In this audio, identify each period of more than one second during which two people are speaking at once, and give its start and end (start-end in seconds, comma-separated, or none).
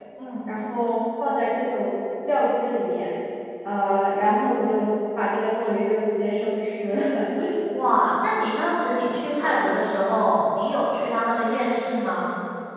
none